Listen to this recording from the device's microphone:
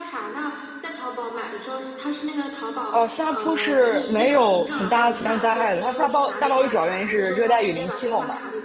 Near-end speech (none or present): present